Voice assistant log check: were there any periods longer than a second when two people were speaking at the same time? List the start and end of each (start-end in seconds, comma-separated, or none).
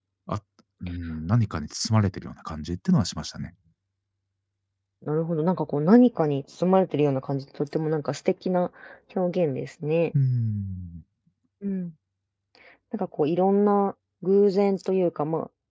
none